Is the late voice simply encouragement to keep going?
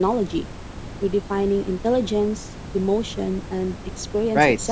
No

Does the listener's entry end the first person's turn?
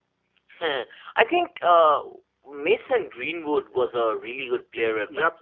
Yes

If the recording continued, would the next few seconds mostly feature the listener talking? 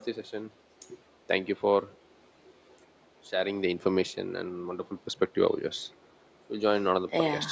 Yes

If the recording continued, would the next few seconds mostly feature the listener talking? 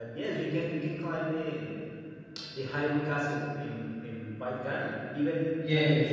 Yes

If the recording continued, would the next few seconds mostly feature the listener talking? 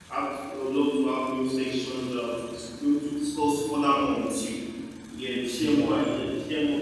No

